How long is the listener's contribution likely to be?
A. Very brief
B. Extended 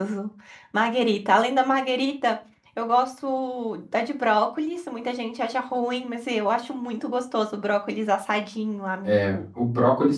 B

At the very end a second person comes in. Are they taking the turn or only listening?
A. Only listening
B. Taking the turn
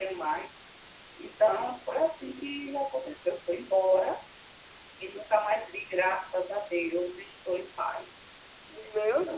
B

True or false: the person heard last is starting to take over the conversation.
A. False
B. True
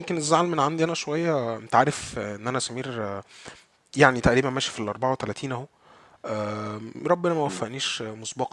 A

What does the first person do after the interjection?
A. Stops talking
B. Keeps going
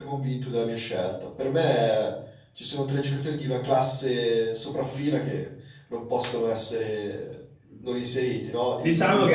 A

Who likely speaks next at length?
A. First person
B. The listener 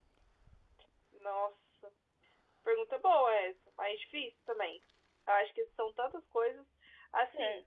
A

